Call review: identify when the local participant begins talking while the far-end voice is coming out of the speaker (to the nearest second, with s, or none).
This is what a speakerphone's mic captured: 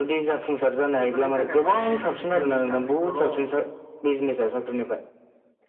1 s